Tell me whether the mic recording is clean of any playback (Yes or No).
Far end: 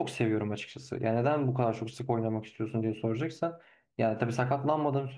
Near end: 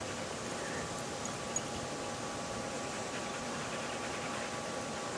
Yes